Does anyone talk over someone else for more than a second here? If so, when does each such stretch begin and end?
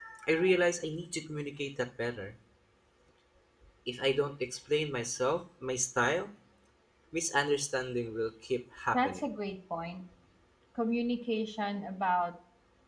none

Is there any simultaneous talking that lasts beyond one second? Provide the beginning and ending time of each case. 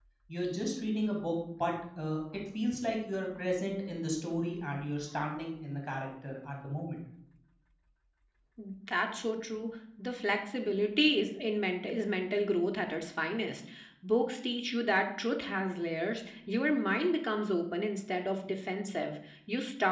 none

